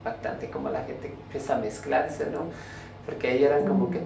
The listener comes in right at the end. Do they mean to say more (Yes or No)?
No